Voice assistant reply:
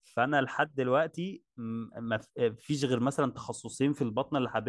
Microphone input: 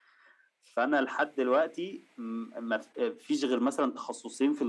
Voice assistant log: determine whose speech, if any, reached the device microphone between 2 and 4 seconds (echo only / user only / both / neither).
echo only